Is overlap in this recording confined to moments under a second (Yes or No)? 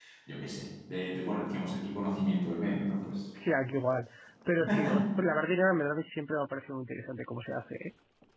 Yes